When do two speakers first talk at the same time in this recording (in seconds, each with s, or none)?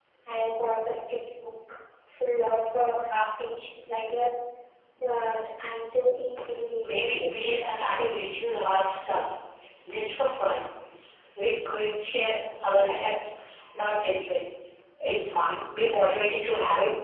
6.8 s